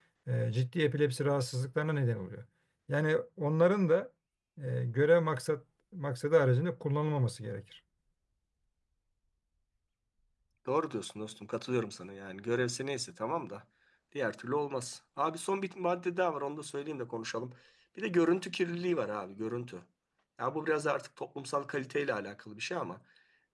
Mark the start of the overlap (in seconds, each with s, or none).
none